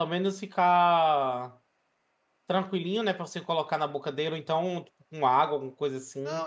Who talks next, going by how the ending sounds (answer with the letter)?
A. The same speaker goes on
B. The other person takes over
B